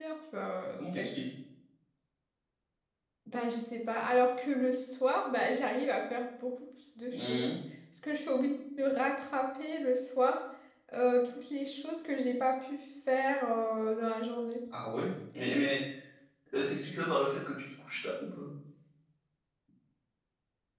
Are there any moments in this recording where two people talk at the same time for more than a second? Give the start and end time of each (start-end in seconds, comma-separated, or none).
none